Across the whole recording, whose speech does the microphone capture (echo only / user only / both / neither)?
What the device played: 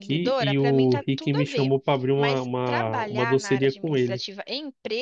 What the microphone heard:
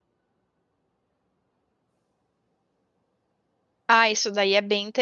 user only